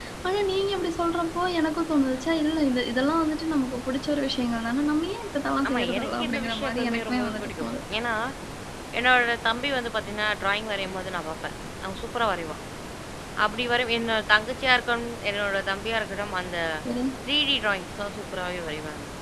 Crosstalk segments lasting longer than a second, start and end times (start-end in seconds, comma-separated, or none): 5.7-7.7